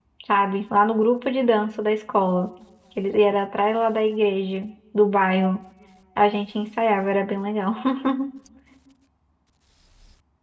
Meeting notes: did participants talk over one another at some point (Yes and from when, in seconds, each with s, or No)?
No